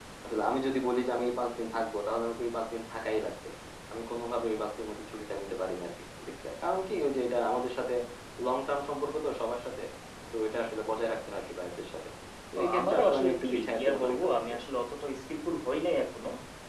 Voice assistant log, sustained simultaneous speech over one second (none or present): present